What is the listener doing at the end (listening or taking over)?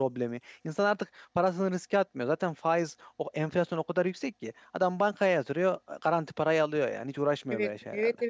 taking over